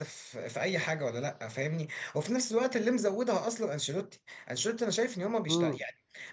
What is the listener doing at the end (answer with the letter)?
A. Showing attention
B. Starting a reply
A